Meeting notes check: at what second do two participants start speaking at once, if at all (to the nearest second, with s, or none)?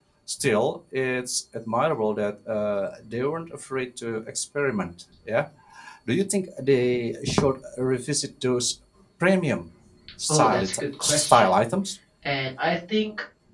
10 s